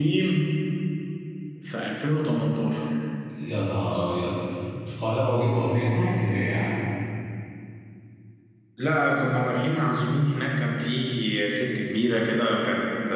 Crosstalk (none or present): none